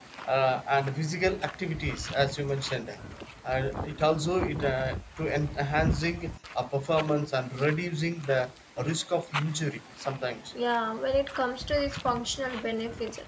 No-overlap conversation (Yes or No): Yes